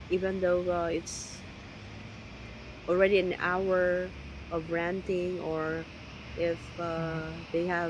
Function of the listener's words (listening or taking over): listening